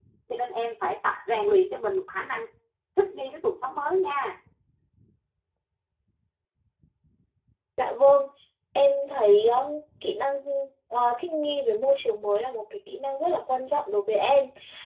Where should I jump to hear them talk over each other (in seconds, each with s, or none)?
none